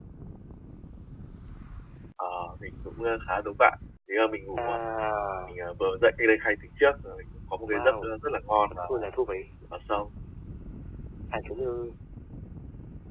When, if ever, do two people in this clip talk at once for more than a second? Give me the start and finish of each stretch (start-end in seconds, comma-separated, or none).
none